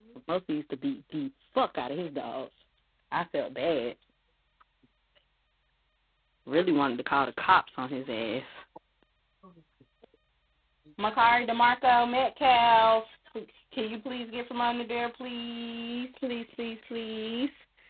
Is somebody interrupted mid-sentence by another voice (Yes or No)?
No